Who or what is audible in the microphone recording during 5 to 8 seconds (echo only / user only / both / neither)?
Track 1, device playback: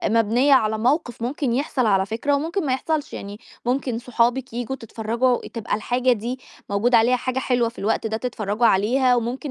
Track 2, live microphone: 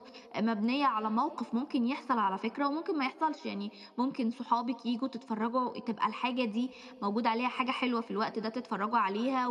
echo only